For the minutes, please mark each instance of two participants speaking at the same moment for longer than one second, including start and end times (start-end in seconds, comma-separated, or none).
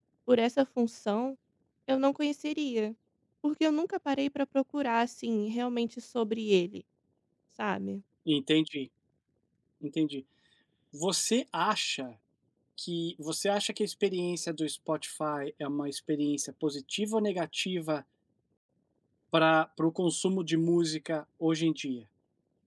none